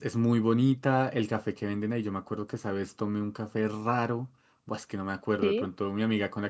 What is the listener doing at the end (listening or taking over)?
listening